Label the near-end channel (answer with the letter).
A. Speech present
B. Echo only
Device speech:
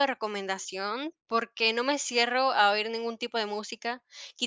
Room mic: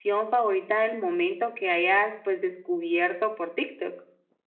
A